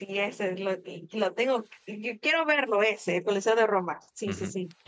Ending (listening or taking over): taking over